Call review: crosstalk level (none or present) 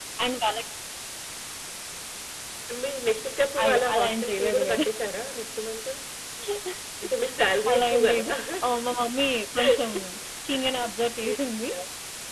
present